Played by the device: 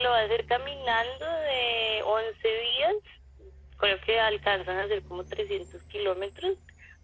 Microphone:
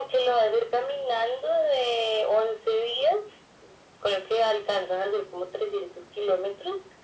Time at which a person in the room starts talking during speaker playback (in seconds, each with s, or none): none